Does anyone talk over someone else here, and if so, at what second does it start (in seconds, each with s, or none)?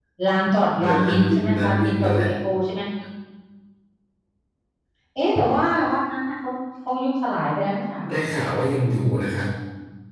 0.8 s